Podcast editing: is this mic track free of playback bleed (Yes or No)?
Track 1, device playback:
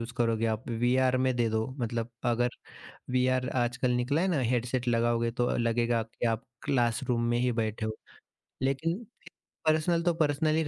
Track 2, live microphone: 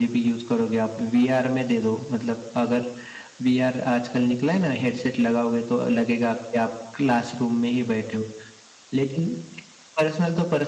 No